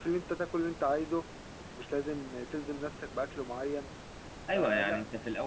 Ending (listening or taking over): taking over